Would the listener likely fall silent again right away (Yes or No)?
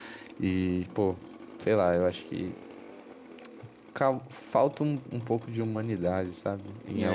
No